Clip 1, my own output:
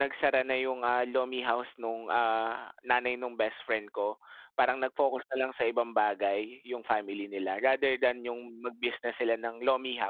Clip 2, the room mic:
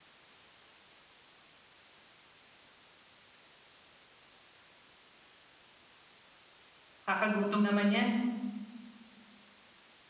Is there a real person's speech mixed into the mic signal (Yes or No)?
Yes